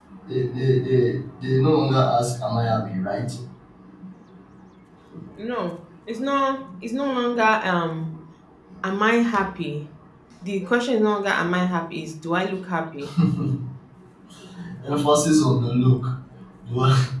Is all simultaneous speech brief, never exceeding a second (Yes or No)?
Yes